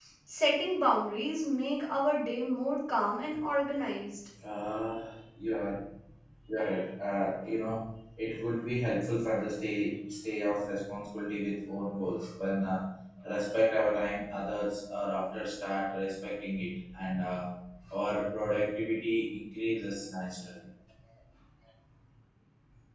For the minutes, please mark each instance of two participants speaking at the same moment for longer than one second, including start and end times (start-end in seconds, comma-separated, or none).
none